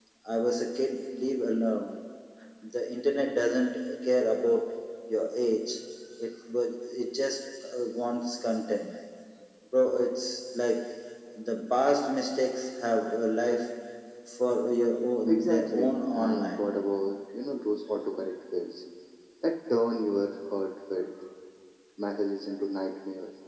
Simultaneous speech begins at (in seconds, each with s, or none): 15.3 s